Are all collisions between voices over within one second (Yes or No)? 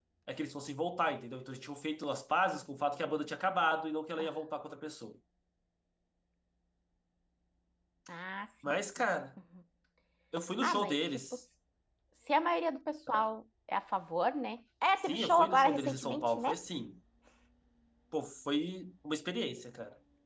No